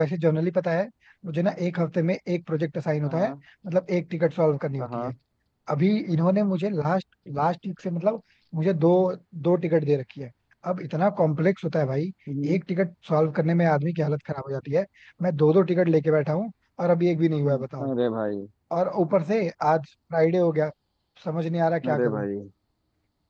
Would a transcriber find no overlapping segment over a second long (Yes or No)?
Yes